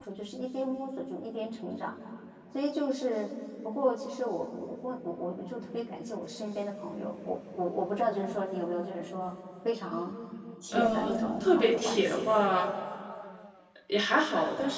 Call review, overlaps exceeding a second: present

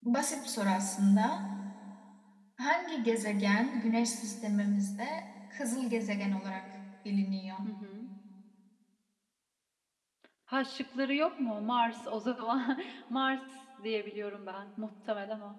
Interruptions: none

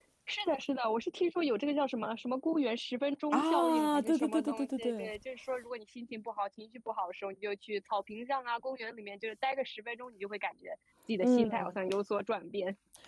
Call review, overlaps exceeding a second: present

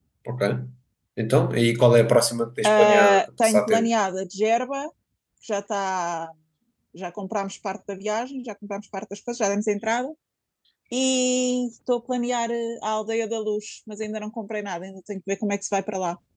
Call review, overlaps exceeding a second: present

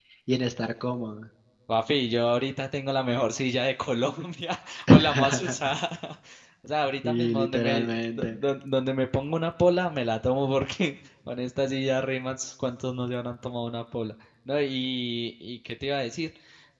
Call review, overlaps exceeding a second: present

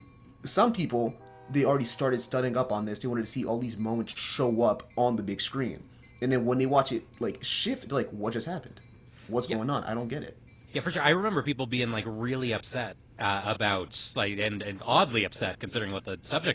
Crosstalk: none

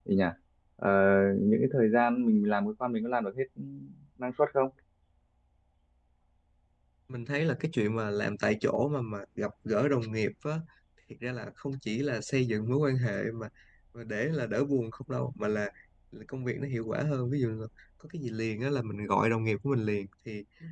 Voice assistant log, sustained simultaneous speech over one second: none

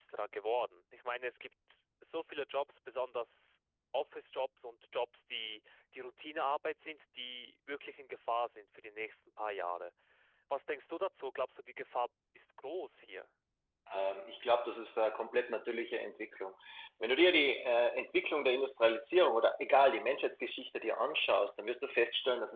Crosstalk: none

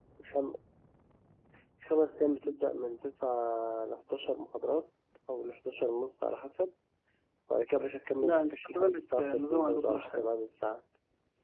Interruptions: present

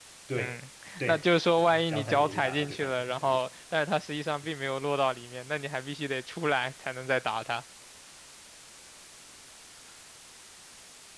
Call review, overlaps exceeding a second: present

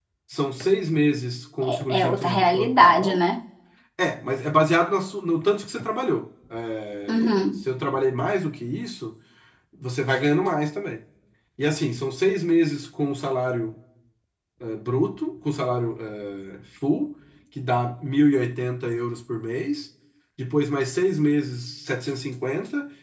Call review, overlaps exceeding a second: present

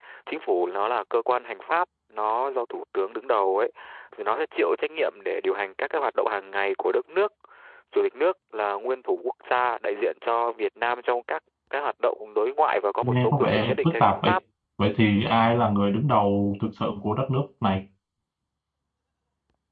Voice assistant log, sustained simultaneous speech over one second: present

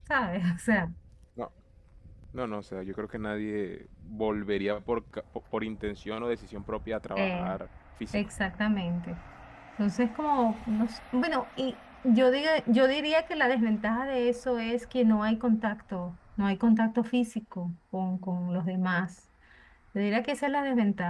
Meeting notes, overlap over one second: none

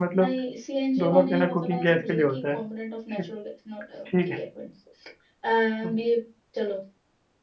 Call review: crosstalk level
present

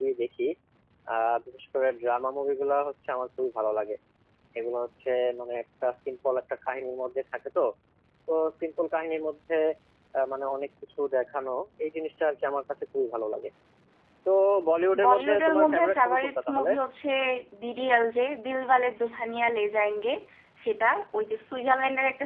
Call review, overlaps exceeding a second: present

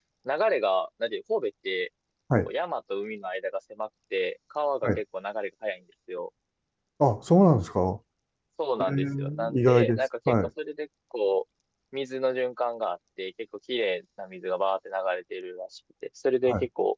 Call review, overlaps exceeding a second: present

